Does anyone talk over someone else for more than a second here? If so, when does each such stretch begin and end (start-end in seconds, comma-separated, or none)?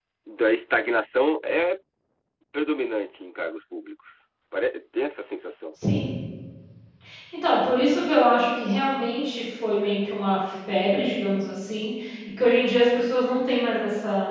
none